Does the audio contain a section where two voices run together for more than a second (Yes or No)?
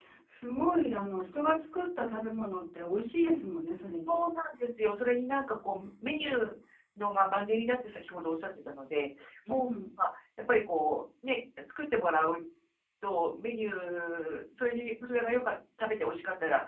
No